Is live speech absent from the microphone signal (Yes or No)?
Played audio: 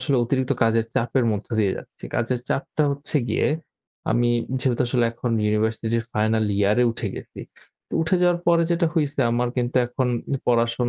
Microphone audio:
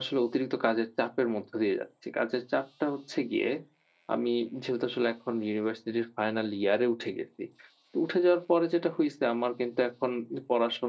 Yes